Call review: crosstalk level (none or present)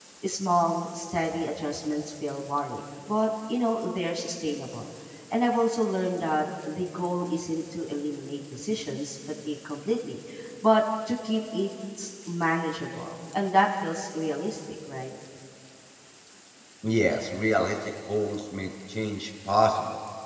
none